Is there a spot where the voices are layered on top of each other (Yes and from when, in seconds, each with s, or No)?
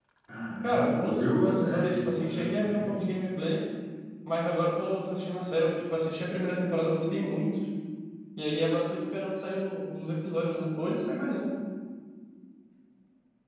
Yes, from 0.6 s